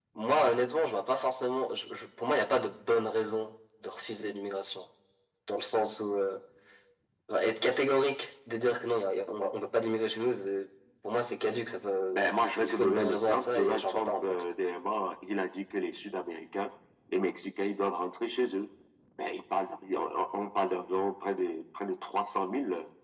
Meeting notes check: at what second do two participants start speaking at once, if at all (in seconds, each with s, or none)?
12.1 s